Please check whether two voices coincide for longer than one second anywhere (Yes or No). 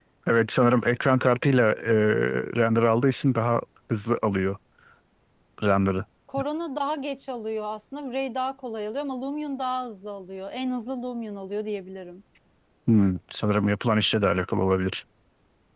No